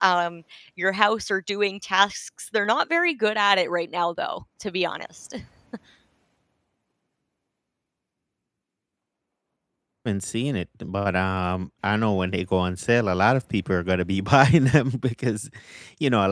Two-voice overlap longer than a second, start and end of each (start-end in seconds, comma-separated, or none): none